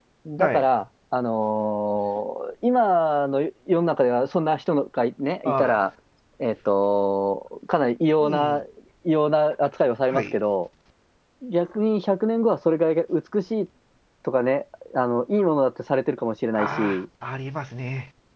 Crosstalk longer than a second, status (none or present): none